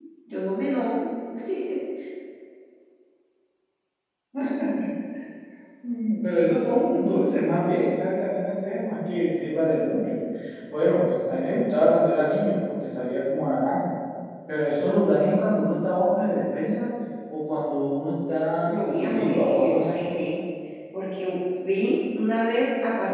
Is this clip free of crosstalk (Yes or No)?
No